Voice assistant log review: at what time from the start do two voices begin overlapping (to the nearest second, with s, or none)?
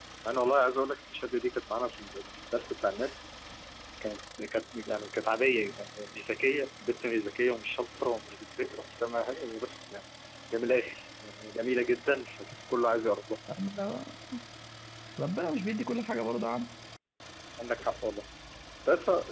none